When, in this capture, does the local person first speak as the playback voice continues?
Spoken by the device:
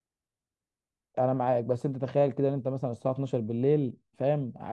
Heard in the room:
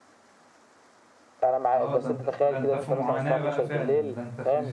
1.8 s

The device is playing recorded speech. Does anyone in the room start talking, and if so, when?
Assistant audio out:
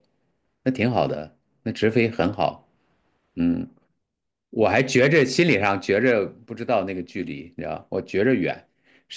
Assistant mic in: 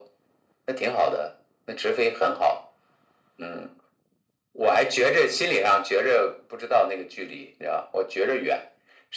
none

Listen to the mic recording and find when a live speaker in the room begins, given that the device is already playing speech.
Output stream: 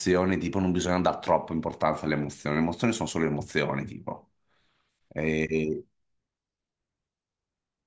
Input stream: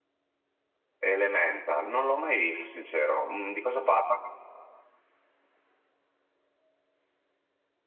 1.0 s

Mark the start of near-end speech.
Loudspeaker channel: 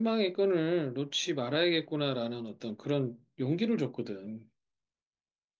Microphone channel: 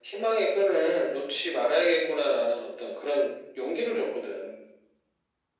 none

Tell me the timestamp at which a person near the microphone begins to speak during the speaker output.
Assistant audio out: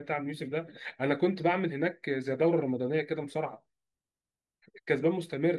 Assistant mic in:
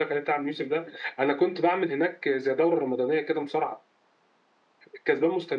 none

